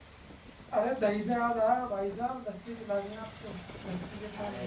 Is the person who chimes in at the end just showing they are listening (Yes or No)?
No